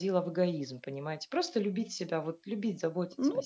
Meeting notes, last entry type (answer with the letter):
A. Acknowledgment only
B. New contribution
B